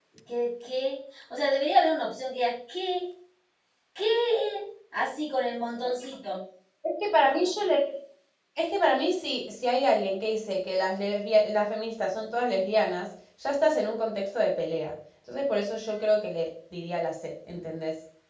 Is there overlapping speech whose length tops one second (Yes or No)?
No